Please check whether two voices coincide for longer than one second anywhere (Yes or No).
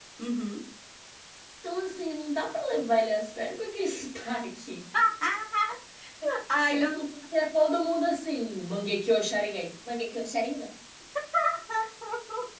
No